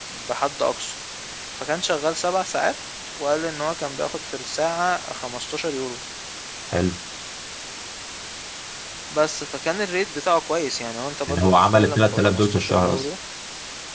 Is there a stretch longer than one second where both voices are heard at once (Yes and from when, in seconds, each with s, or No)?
Yes, from 11.3 s